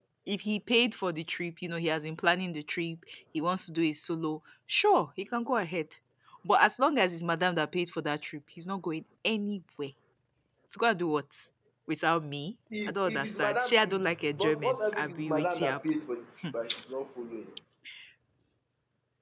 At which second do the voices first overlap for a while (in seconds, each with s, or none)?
12.7 s